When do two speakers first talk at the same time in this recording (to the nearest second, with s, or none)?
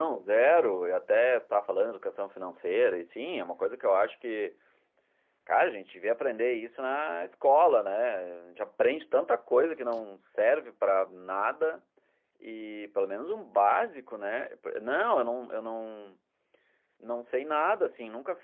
none